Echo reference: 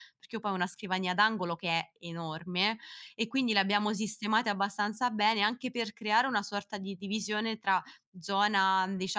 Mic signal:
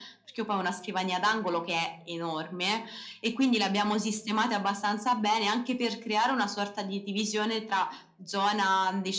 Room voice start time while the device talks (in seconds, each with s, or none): none